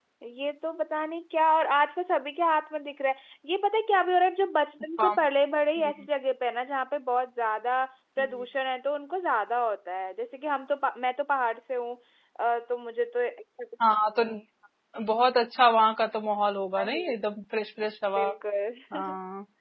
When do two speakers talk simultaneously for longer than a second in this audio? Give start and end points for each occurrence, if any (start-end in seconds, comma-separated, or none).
none